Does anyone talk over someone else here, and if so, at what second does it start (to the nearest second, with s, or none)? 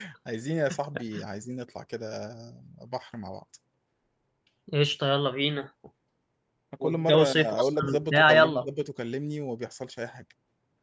7 s